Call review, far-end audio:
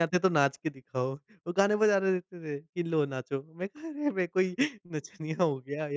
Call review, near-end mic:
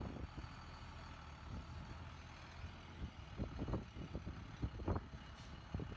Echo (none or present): none